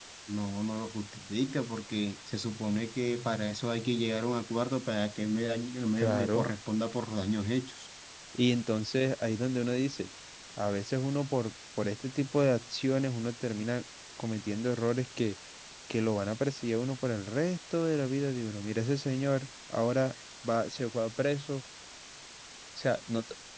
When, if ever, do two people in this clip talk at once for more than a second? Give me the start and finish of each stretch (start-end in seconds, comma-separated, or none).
none